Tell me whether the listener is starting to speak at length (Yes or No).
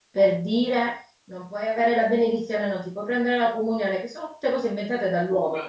No